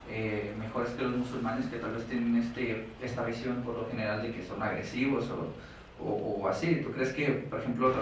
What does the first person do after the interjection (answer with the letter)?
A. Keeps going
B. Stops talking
A